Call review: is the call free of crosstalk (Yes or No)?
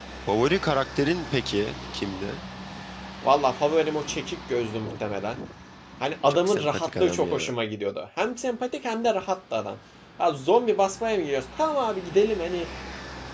No